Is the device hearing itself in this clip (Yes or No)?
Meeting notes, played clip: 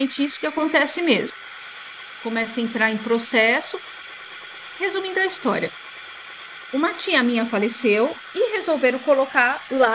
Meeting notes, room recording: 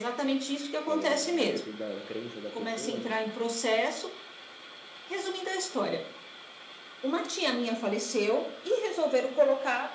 Yes